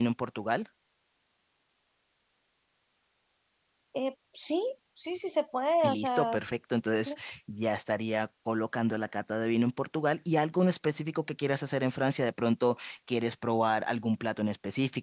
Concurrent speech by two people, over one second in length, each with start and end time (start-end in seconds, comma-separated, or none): none